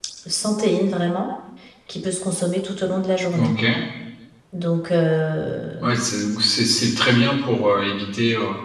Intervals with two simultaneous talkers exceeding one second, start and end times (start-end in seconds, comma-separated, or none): none